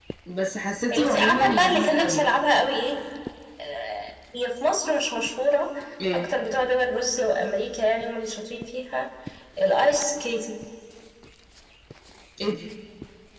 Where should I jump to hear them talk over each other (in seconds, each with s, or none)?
0.9 s